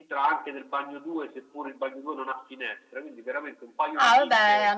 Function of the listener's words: taking over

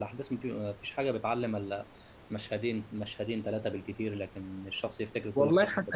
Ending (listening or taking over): taking over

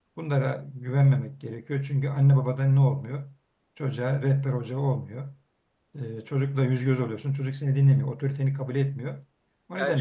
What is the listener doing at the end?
taking over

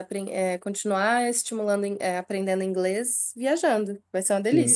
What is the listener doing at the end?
taking over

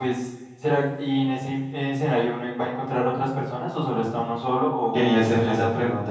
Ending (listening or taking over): taking over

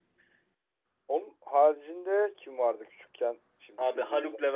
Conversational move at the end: taking over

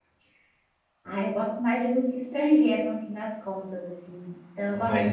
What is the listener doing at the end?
listening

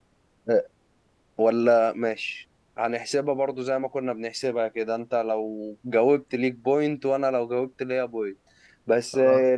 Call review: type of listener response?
listening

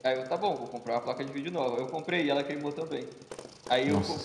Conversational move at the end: listening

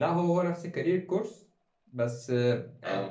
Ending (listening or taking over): listening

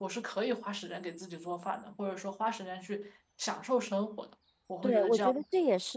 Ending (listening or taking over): taking over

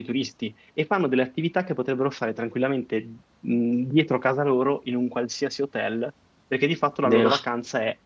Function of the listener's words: listening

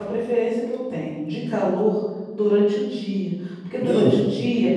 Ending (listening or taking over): listening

